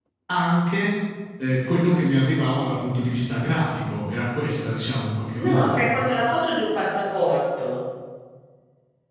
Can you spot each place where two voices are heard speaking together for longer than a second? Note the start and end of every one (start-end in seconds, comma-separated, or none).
none